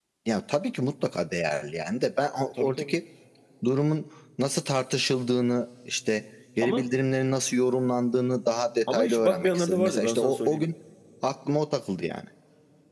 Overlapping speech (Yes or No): Yes